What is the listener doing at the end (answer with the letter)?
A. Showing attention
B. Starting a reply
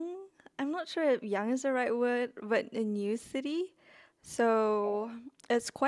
A